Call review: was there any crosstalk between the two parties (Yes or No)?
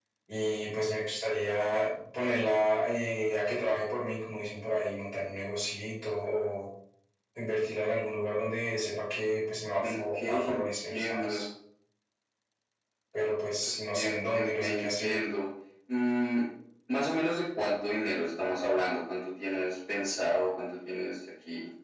Yes